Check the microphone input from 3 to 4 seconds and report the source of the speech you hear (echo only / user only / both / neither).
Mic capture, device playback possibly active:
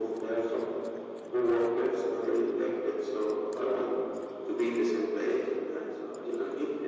echo only